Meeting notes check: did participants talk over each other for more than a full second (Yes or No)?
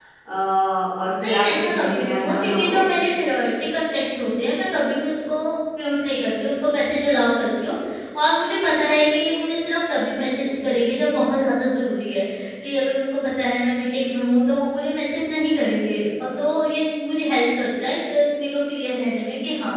Yes